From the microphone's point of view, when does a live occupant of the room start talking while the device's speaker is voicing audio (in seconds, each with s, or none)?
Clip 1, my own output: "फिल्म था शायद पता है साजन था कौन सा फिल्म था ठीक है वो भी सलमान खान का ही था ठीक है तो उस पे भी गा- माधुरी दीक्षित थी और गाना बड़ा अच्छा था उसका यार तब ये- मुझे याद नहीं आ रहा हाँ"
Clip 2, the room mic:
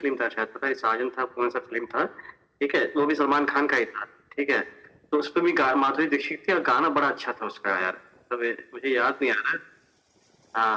none